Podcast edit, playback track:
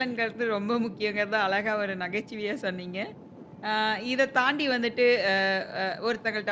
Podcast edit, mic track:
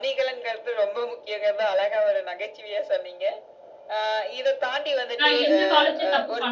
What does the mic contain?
both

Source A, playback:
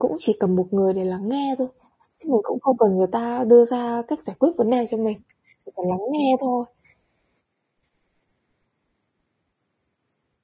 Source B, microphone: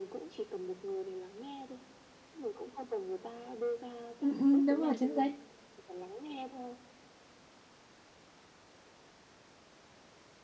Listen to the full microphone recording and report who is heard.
both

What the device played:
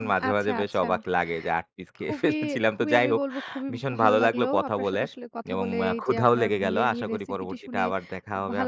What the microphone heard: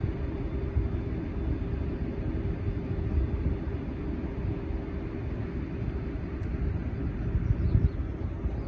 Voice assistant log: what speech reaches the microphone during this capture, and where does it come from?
neither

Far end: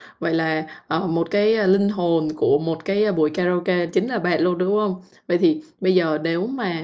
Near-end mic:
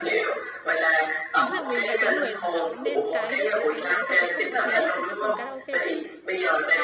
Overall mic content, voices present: both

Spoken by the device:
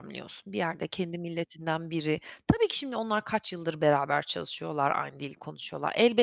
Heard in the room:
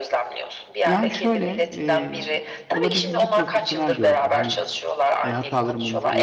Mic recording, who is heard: both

